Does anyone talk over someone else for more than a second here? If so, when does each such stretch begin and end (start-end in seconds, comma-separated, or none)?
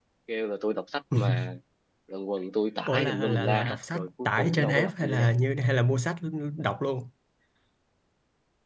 2.9-5.3